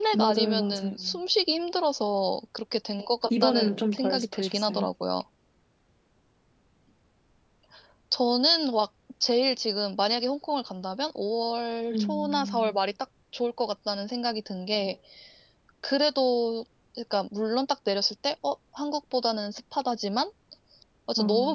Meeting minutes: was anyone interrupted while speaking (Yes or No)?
Yes